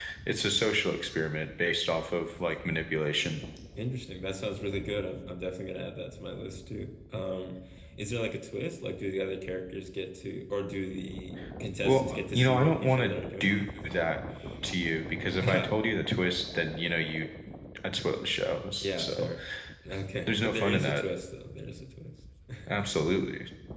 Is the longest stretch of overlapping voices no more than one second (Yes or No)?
No